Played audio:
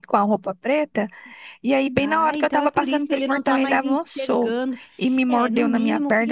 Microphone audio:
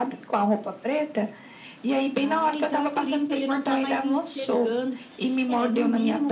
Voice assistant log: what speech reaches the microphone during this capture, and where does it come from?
echo only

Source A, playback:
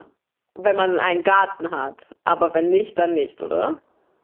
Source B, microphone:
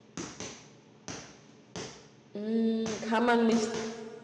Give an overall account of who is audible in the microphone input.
user only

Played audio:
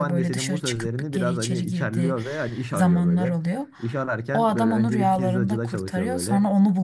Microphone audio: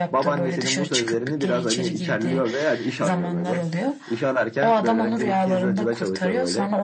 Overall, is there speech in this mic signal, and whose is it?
echo only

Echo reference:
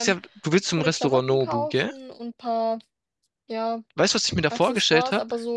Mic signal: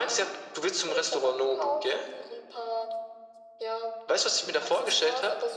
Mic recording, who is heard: echo only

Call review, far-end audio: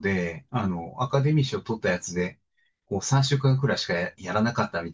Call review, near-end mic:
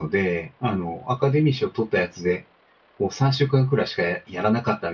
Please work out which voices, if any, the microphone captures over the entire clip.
echo only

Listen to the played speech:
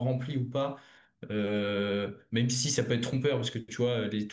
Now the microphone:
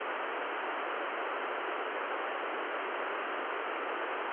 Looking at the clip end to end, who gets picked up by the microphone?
neither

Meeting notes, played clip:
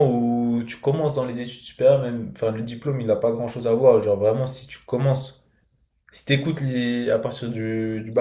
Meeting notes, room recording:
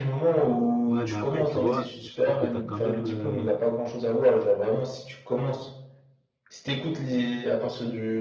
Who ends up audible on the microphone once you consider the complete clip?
both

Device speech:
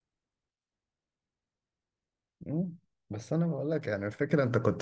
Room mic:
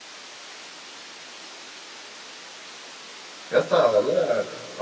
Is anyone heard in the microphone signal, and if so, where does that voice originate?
user only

